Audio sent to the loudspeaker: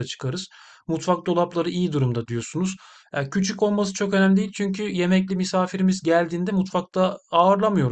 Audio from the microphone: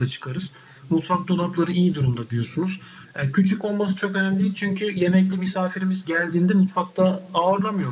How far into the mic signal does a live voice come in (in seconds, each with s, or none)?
none